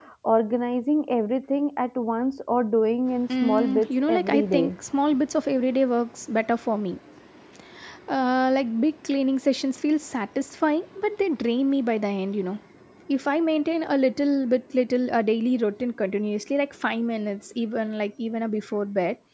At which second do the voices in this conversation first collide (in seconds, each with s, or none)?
3.3 s